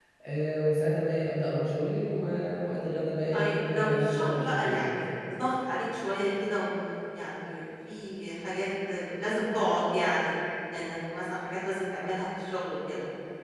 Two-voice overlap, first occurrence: 3.3 s

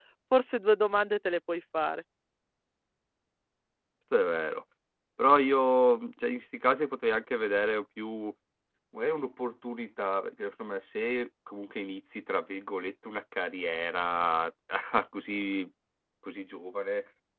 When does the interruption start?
none

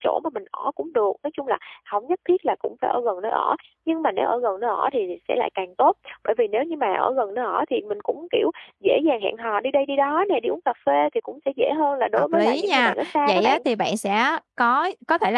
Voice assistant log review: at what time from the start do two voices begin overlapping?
12.2 s

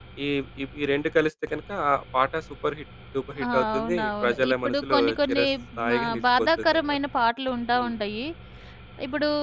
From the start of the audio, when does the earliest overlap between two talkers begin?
3.4 s

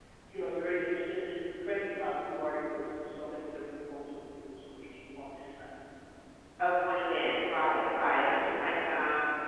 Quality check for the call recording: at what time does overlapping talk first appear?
none

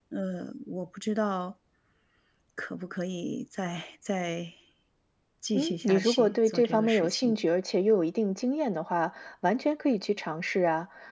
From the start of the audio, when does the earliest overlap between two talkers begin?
5.5 s

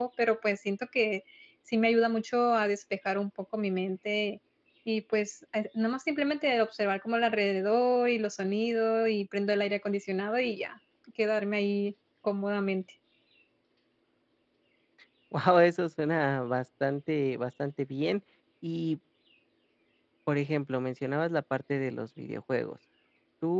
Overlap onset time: none

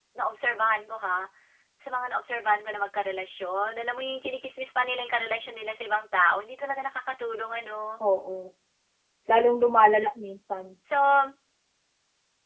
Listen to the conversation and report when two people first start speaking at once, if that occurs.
none

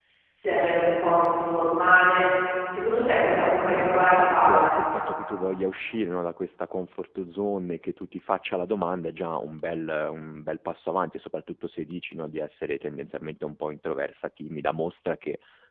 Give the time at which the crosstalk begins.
3.4 s

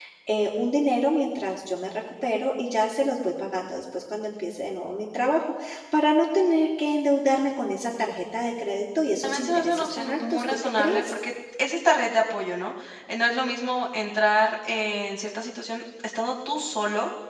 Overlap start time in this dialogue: 9.2 s

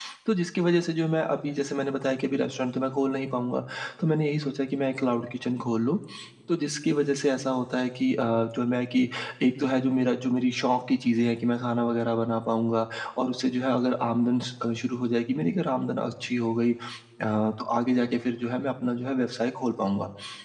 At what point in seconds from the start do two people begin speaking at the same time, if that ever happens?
none

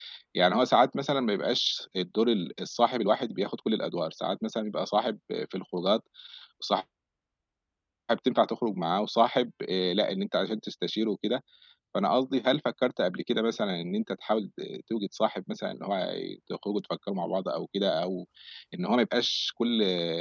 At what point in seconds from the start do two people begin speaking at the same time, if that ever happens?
none

